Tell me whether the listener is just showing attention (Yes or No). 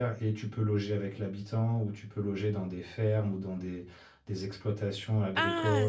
No